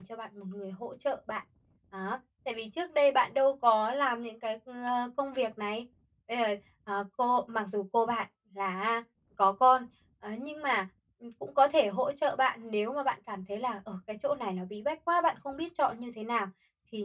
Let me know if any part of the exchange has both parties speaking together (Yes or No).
No